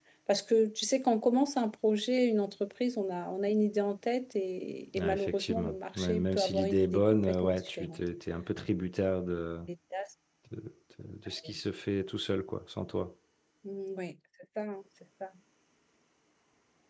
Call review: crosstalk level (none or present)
present